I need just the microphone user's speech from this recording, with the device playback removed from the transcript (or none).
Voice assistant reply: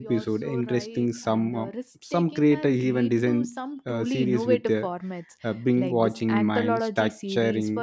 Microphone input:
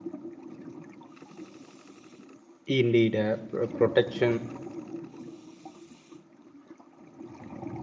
Indeed, uh, pro- protection,